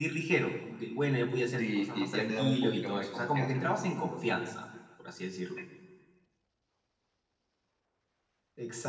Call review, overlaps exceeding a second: present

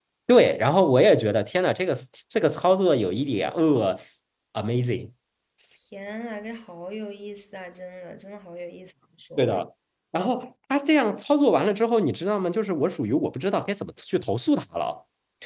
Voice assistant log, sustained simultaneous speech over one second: none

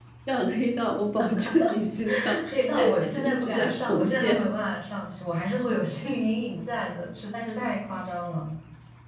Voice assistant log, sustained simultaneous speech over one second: present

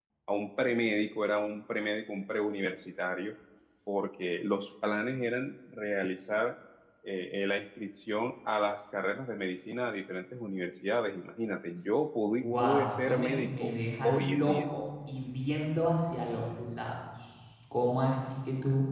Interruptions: present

